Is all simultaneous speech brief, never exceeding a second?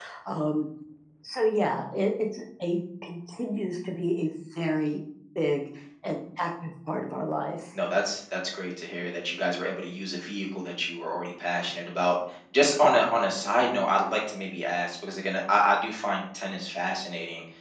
Yes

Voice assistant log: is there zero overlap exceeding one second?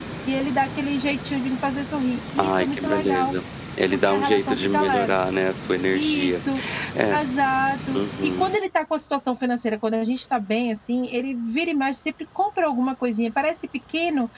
No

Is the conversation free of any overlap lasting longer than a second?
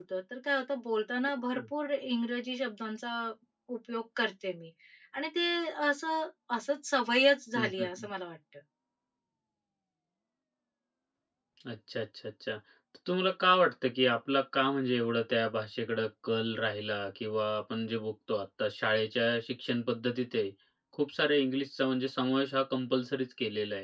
Yes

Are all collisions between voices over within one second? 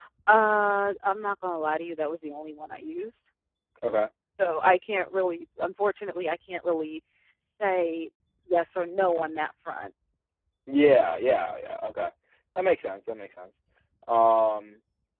Yes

